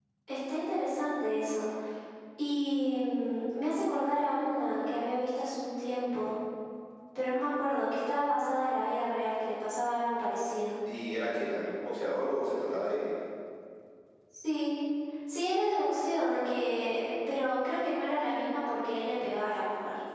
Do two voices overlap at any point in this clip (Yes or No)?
No